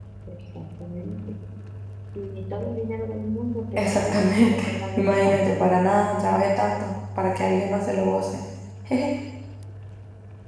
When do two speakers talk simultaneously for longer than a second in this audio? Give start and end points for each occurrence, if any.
3.8-5.4

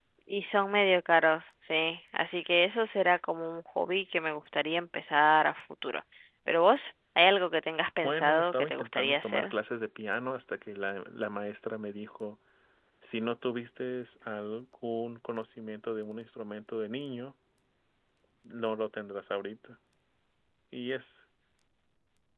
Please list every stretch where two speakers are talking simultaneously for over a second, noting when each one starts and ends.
8.0-9.5

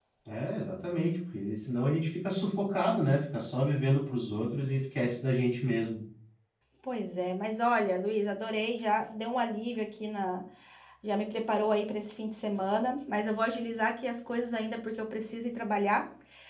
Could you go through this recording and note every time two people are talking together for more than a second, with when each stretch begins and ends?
none

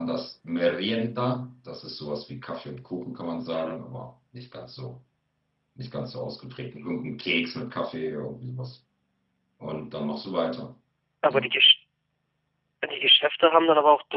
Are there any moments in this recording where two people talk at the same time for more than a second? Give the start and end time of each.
none

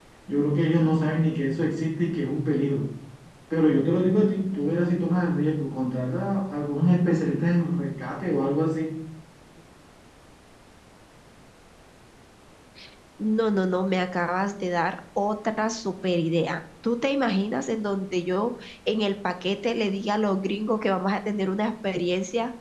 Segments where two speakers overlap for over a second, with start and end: none

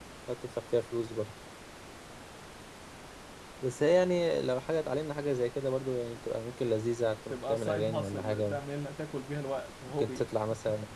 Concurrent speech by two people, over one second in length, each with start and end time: 7.3-8.6

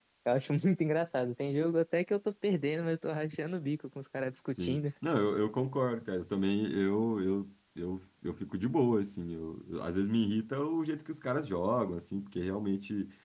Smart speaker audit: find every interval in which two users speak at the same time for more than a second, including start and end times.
none

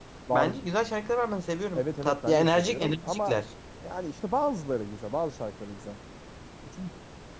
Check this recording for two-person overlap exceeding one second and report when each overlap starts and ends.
1.8-3.4

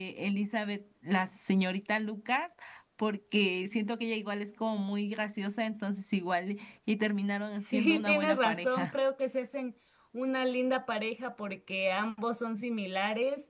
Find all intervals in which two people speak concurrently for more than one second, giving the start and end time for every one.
7.6-8.9

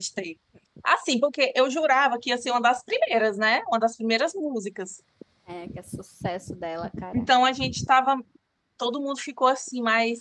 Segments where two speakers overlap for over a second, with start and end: none

